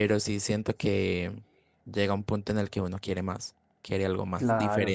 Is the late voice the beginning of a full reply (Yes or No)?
Yes